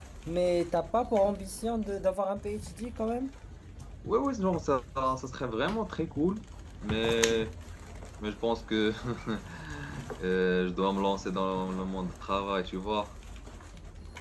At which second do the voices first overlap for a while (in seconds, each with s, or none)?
none